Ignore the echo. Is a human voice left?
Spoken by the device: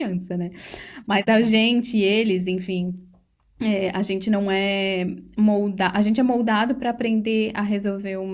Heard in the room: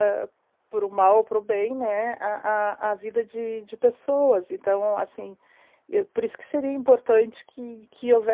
Yes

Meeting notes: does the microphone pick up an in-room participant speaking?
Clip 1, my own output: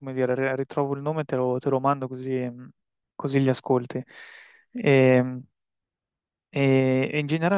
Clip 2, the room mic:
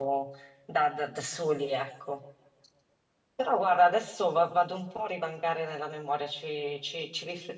Yes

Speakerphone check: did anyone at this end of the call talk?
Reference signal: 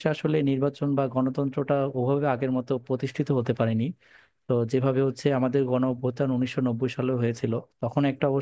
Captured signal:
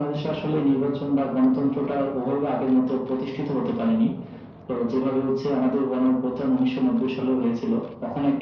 No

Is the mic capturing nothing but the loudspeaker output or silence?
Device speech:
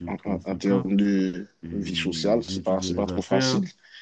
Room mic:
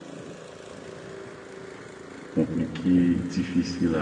No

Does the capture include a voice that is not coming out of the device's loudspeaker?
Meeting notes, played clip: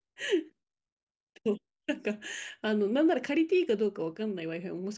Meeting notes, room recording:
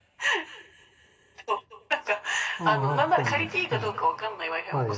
Yes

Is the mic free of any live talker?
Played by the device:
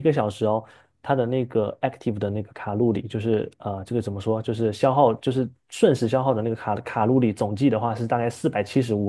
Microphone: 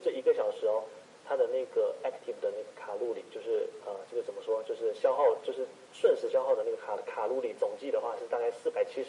Yes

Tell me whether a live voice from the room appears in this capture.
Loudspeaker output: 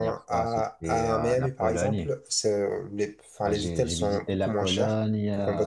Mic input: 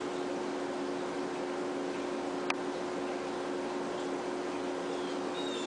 No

